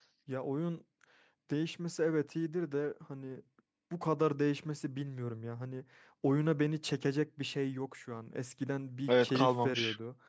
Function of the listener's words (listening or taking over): listening